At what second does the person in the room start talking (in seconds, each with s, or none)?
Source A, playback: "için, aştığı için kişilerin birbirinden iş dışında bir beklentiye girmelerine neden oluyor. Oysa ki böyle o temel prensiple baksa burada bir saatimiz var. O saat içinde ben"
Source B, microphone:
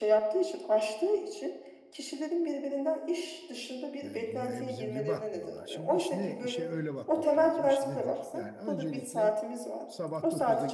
4.0 s